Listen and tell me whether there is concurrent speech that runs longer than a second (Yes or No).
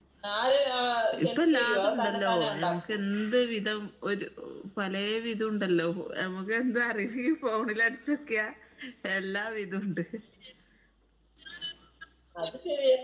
Yes